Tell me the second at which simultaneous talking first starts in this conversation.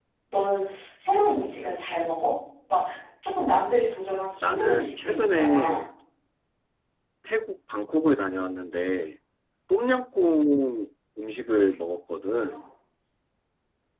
4.4 s

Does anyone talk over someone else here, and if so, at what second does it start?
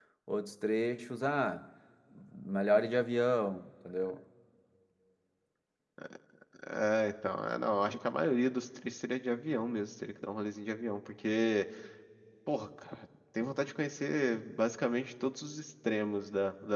none

